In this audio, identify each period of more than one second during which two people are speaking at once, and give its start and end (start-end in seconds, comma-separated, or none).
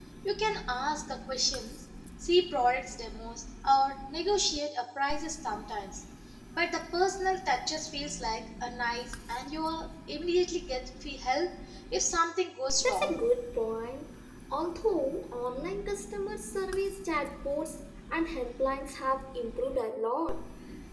none